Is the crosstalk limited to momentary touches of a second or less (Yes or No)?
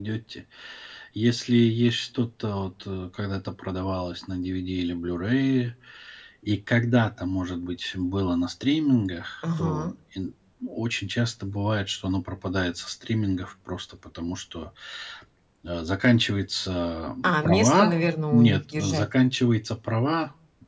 No